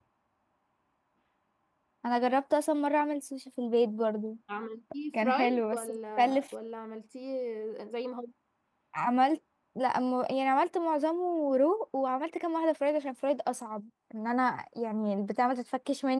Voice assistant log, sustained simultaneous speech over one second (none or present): present